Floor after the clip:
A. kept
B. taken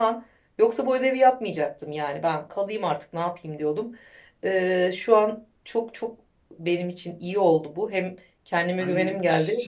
B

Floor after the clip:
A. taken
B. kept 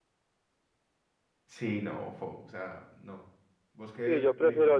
A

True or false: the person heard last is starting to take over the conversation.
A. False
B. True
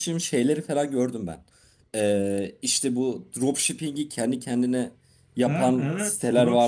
B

